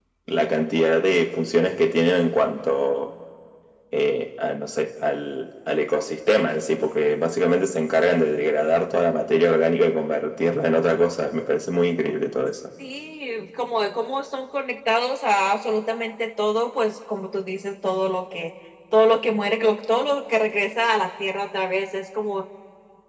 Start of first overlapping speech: none

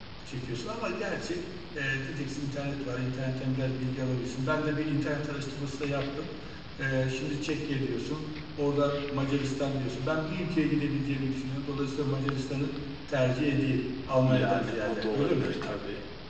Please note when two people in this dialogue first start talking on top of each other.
14.2 s

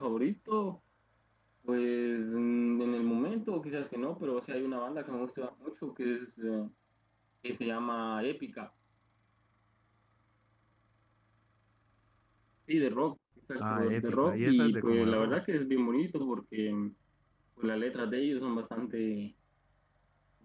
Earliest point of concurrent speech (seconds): 13.6 s

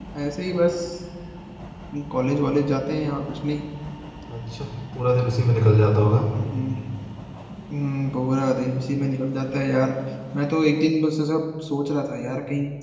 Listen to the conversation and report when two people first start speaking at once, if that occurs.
none

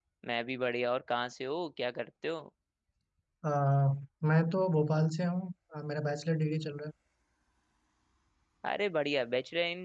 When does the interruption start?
none

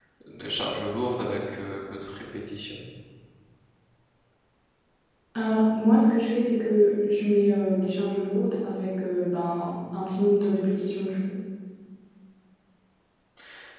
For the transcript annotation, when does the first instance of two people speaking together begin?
none

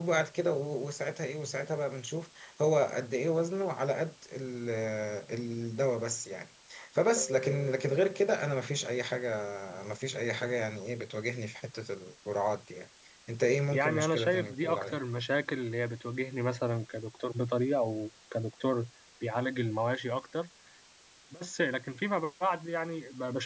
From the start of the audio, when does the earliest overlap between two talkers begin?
13.7 s

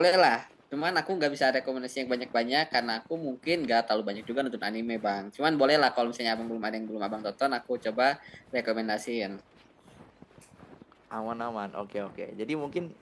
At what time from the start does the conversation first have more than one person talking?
none

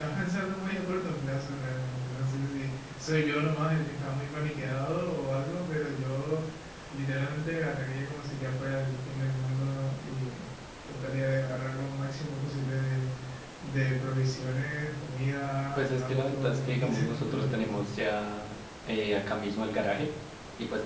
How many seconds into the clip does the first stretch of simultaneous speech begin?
15.8 s

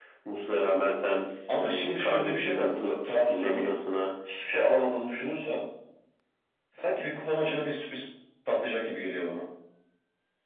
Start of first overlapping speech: 1.5 s

